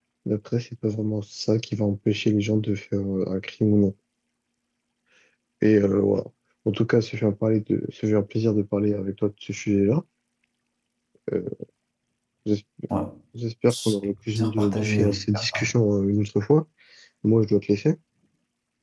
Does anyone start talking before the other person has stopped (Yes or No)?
Yes